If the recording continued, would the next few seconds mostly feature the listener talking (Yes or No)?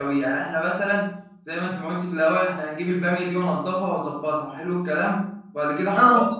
No